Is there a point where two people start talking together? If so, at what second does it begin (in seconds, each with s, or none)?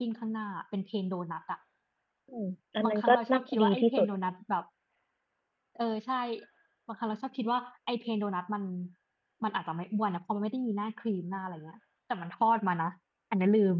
2.8 s